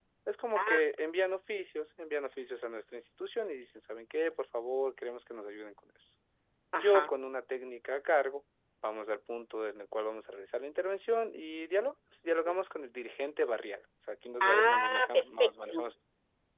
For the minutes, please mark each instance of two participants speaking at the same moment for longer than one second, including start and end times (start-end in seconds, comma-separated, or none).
14.4-15.8